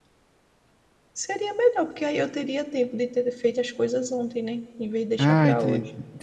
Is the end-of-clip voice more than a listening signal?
Yes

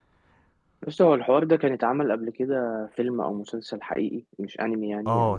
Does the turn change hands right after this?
Yes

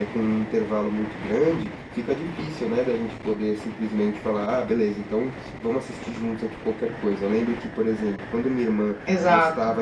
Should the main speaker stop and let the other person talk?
No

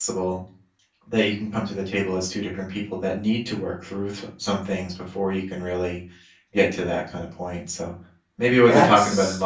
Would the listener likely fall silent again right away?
Yes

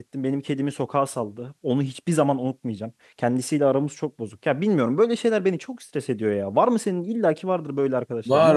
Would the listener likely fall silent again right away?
No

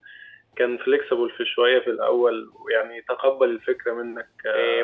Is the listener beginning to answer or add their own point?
Yes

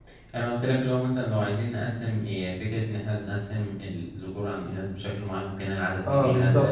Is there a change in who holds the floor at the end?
Yes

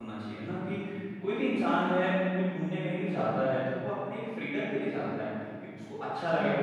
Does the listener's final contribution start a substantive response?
Yes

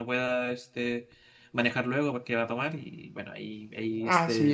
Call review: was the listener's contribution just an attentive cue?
No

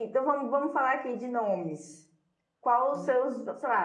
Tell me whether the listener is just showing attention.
Yes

